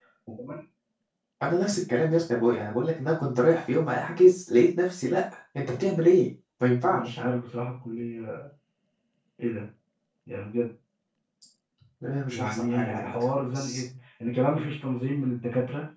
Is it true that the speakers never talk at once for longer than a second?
No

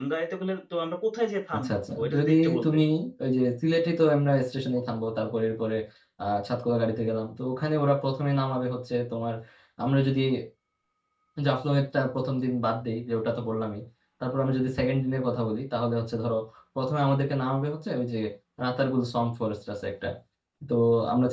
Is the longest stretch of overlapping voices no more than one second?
No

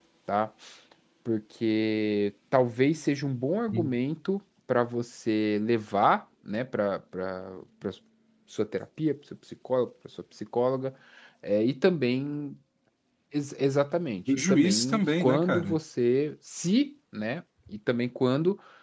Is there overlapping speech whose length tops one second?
Yes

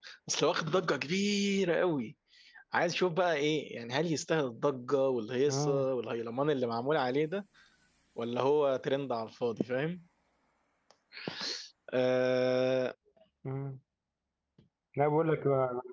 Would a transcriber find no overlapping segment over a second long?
Yes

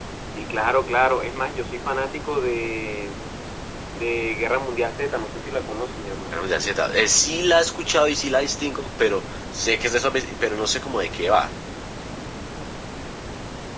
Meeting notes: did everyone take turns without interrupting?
Yes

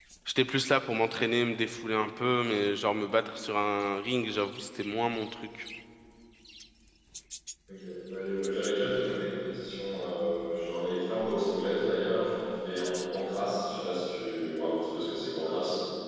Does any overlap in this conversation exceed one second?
No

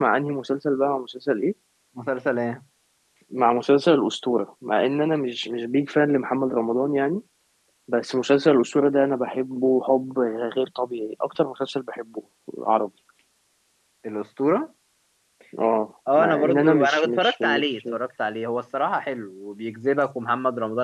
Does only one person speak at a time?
No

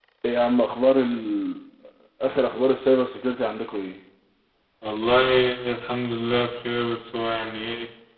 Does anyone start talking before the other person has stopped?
No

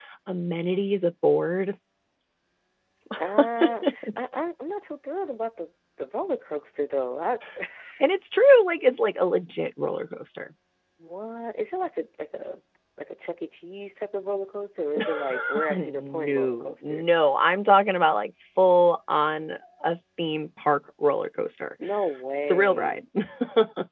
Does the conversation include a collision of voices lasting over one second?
Yes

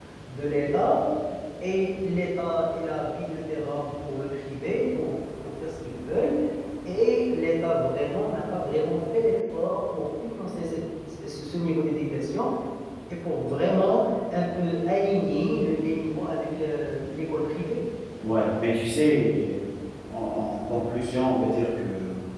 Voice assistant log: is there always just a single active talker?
Yes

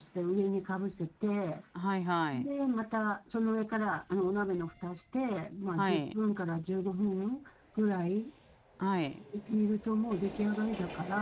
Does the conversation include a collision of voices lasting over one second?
No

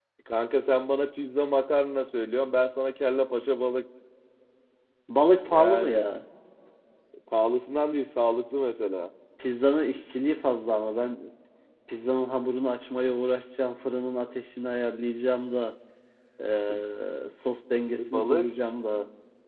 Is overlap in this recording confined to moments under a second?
Yes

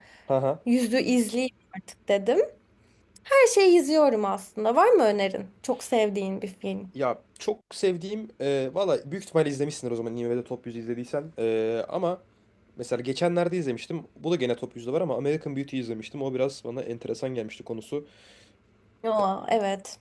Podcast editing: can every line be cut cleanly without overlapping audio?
Yes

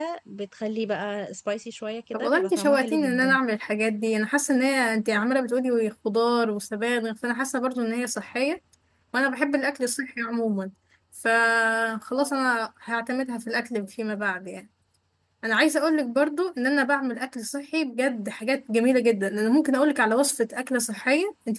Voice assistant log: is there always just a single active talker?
No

